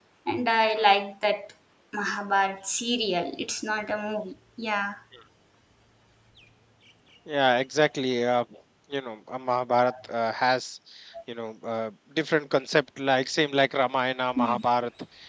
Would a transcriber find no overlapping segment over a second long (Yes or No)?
Yes